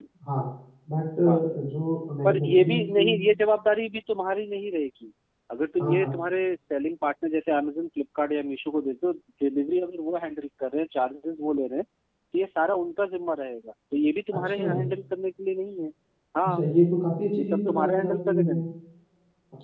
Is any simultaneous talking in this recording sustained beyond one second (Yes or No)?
Yes